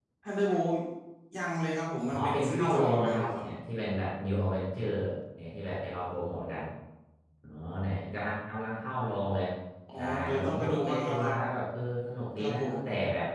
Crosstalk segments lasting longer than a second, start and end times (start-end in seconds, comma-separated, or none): 2.1-3.4, 10.0-11.3